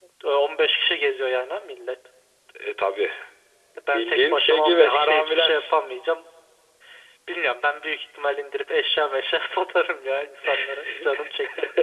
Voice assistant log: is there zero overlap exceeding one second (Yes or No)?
No